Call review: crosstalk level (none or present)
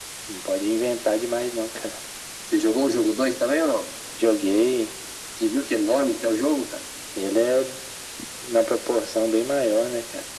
none